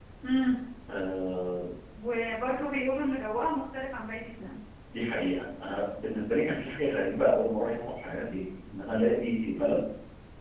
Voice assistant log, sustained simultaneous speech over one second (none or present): none